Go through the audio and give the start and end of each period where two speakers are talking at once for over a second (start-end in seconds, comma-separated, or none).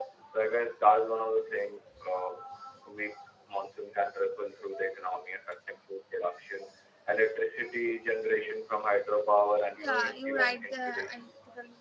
9.8-11.2